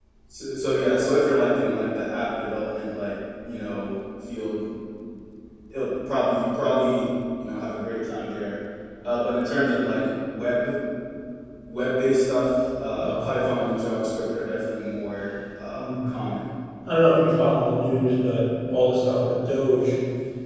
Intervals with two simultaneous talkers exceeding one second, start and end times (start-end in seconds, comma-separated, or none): none